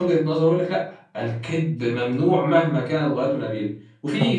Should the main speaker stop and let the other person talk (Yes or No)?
No